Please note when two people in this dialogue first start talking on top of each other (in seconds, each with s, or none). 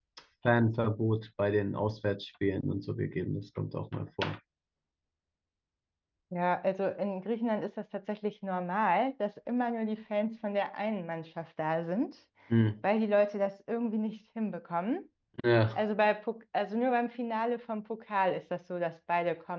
none